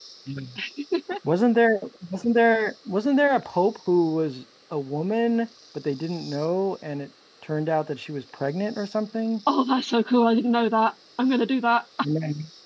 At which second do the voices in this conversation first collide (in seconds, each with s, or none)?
none